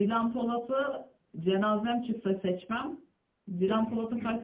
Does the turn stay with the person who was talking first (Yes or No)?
Yes